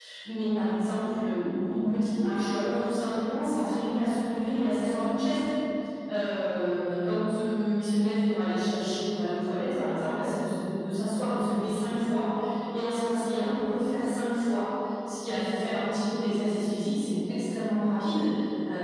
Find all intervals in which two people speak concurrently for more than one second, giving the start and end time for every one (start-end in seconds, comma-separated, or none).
none